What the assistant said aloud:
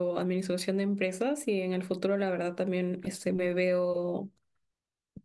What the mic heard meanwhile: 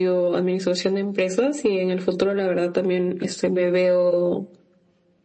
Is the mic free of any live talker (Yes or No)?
Yes